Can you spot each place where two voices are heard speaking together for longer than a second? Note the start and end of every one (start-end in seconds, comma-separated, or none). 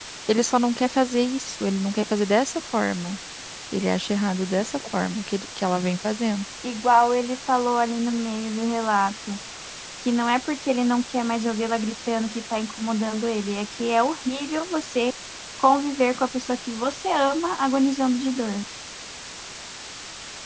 none